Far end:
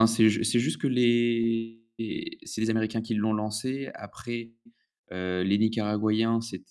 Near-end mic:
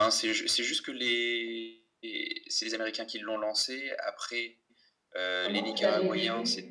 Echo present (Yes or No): Yes